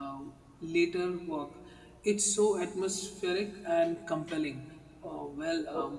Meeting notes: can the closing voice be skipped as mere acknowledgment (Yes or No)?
Yes